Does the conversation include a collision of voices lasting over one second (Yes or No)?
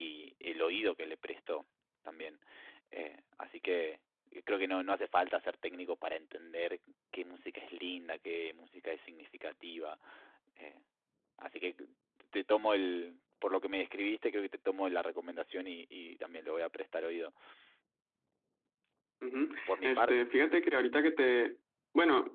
No